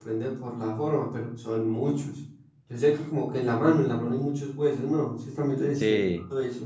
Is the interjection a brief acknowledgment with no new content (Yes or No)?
No